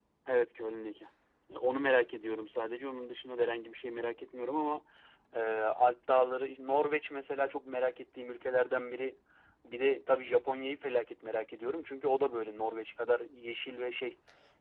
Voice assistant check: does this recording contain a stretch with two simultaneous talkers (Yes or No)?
No